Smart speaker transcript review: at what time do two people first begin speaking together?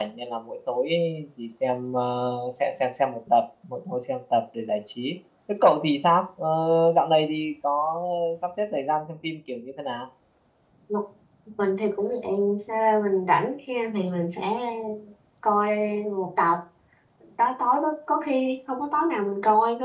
none

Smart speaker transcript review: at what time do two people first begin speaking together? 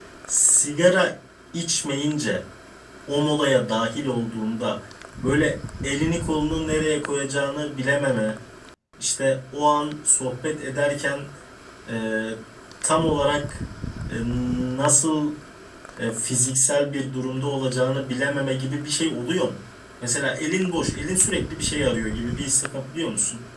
none

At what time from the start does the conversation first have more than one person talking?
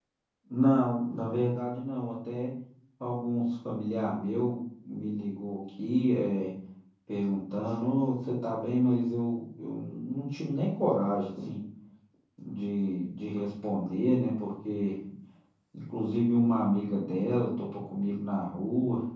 none

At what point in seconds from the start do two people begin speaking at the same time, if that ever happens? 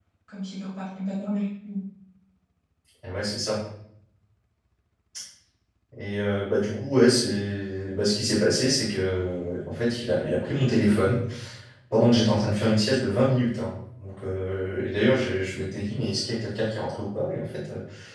none

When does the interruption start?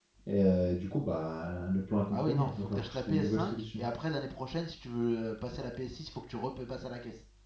2.1 s

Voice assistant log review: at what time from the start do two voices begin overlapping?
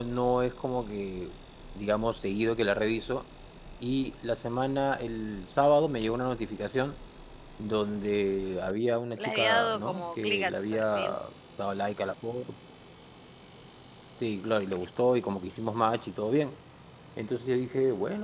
9.2 s

